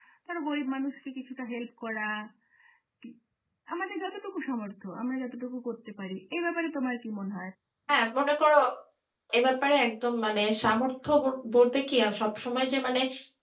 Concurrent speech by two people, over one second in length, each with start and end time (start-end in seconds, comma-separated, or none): none